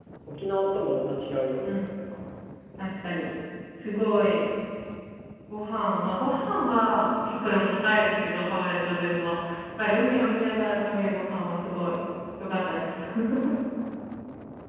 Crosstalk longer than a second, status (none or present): none